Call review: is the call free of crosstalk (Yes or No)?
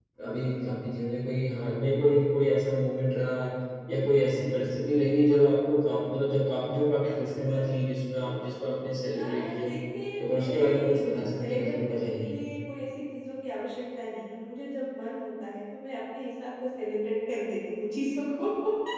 No